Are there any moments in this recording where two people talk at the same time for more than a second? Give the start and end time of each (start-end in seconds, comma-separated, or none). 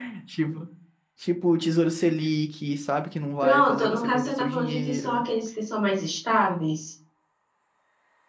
3.4-5.2